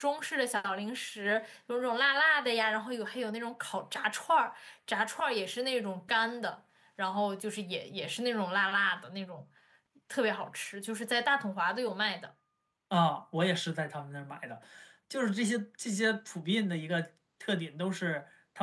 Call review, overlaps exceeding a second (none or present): none